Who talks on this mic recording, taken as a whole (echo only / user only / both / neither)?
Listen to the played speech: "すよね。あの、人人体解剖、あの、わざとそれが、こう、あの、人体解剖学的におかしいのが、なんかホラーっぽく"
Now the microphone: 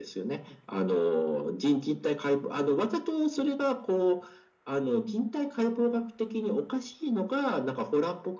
echo only